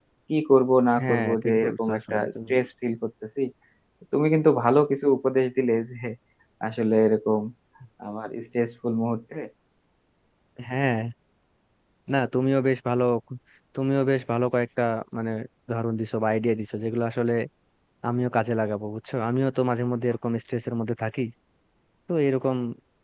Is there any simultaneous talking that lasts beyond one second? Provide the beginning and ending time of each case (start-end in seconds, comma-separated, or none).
1.0-2.5